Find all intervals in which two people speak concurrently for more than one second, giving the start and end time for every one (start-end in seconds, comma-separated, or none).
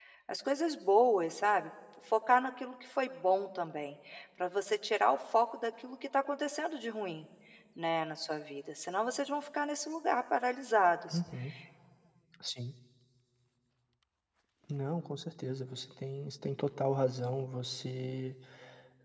none